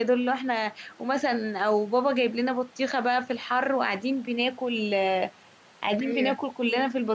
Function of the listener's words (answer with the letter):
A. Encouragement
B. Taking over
A